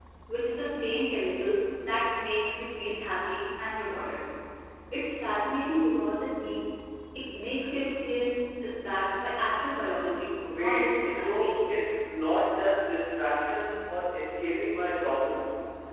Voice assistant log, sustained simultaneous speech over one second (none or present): present